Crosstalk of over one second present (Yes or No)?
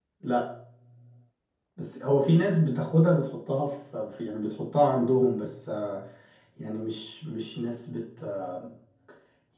No